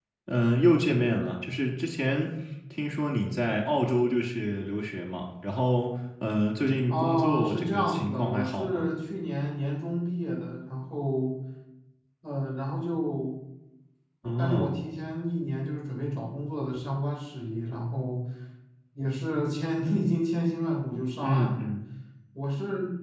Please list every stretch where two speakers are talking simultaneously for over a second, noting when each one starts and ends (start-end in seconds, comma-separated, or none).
6.9-8.8